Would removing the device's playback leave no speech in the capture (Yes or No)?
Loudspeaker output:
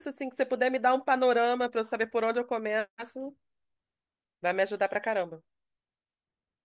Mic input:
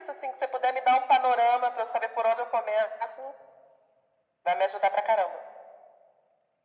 Yes